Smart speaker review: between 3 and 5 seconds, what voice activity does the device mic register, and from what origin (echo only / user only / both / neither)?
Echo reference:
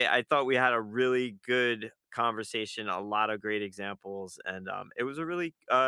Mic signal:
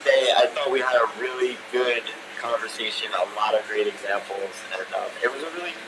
echo only